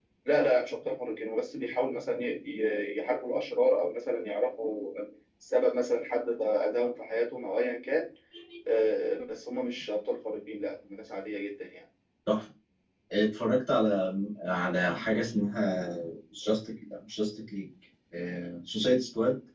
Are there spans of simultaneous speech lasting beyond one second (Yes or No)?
No